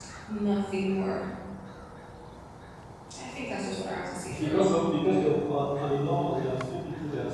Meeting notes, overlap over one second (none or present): none